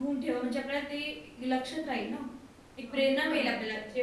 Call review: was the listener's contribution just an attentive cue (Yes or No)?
Yes